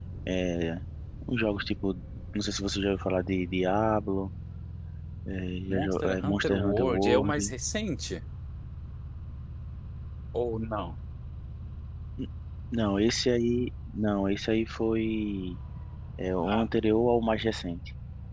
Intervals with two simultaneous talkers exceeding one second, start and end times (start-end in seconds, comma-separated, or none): 5.7-7.5